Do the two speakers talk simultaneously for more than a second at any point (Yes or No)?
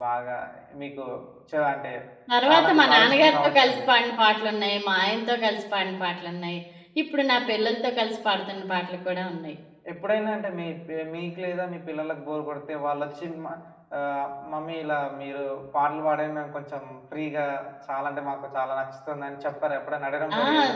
Yes